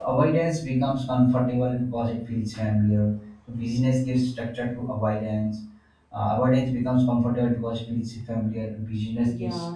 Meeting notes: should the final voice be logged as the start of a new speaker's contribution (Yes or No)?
Yes